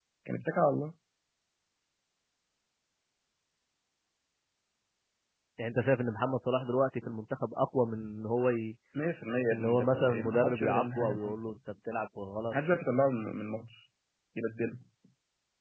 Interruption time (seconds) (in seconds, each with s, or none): 9.5 s